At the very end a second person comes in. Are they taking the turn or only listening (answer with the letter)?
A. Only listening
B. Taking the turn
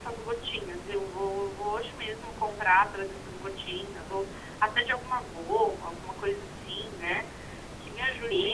B